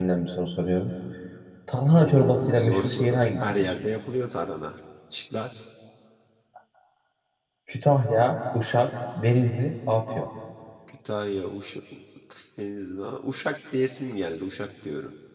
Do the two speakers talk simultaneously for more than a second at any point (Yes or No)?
Yes